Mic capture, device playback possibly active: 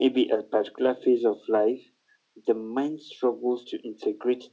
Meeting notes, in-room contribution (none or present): none